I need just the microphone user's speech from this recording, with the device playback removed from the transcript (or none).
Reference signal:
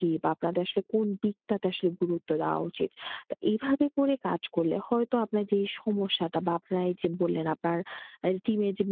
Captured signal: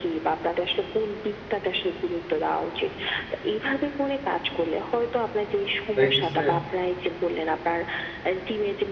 দেখা গেছে